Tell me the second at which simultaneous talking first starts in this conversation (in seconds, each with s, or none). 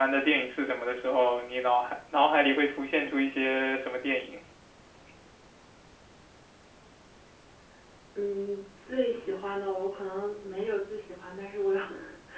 none